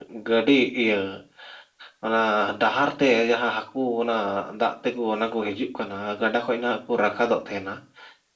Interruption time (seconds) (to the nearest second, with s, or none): none